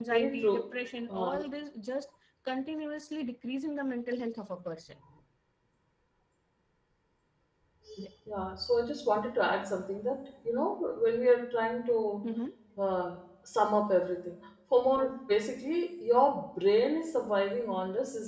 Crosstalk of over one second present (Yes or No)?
No